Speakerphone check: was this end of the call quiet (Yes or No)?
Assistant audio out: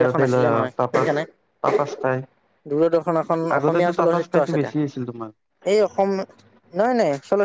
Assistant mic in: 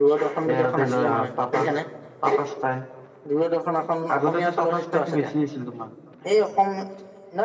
Yes